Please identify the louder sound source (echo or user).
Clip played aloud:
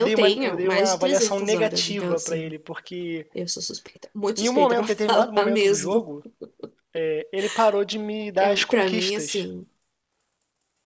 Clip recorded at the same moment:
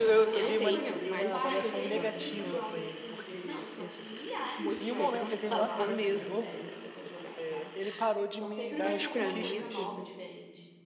echo